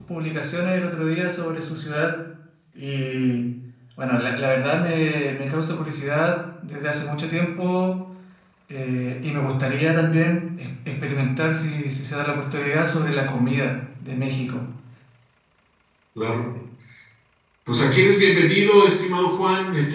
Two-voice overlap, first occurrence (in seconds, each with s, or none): none